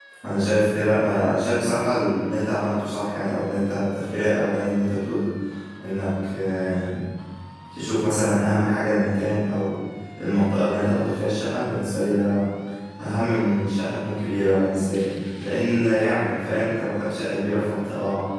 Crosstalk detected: No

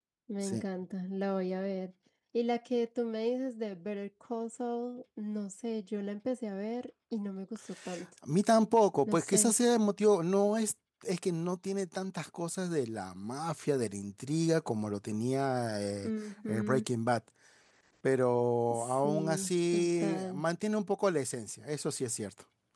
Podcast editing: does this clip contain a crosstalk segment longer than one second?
Yes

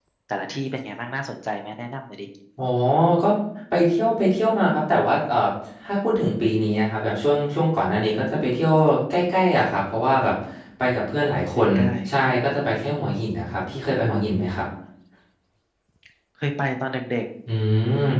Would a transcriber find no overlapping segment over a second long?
Yes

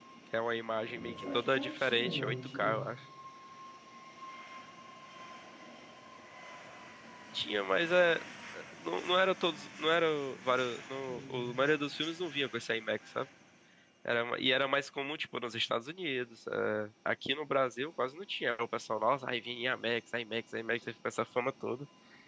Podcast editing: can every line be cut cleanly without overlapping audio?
No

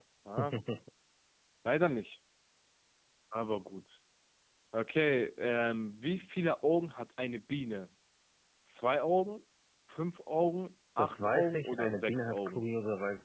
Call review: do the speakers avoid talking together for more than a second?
No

